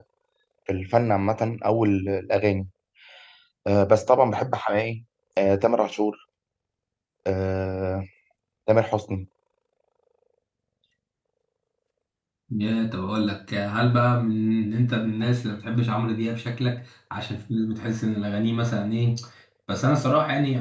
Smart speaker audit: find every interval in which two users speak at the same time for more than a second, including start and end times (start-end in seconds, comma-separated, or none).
none